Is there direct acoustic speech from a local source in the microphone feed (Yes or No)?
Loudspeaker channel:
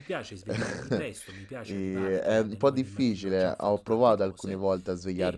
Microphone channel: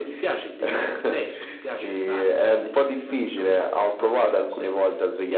No